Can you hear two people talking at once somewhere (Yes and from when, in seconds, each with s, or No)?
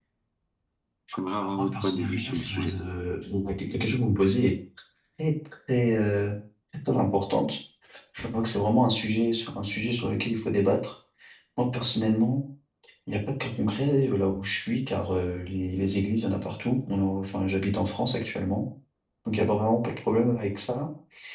Yes, from 1.4 s